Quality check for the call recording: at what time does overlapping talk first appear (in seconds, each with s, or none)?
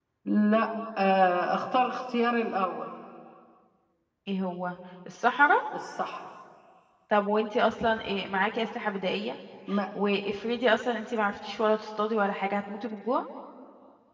none